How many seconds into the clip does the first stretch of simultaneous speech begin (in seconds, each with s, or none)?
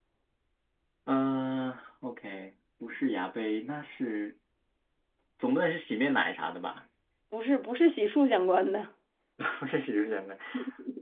none